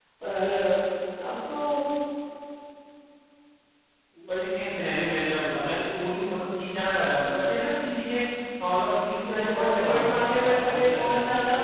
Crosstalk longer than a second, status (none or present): present